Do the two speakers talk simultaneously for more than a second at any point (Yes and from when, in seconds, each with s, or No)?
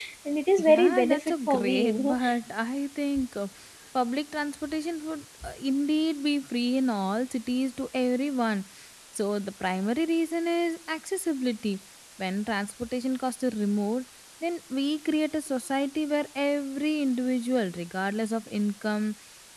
Yes, from 0.6 s